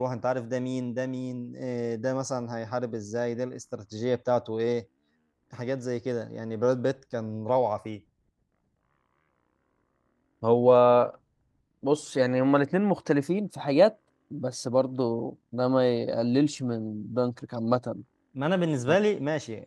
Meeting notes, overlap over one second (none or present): none